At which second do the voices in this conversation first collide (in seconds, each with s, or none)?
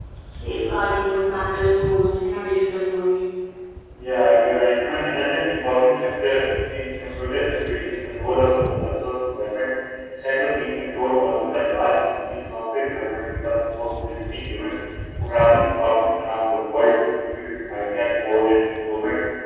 none